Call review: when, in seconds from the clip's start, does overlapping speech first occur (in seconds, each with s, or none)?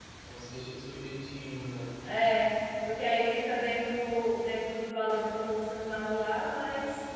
none